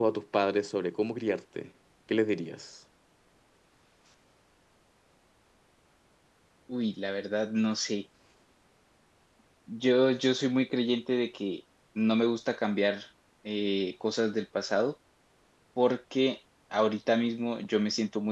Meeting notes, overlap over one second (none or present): none